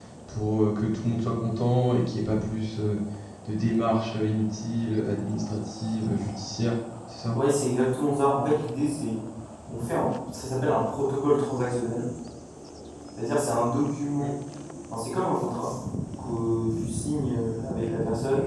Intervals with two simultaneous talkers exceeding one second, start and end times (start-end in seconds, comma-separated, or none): none